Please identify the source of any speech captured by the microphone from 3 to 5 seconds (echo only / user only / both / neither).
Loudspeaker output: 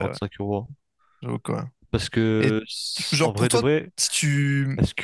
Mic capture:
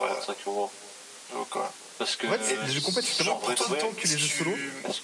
both